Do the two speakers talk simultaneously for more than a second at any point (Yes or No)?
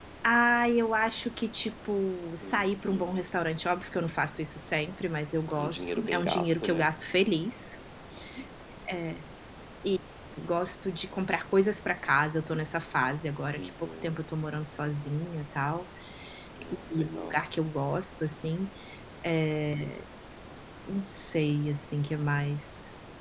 Yes